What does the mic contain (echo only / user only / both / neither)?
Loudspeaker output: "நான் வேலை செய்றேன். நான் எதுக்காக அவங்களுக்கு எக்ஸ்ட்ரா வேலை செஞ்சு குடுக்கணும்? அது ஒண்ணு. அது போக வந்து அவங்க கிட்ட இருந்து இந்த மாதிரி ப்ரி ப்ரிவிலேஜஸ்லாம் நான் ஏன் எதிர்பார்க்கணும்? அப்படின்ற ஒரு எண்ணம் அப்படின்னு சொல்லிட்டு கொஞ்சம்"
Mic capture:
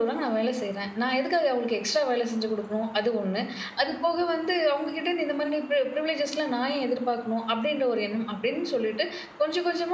echo only